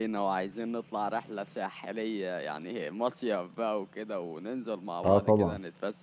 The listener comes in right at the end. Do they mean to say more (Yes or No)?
No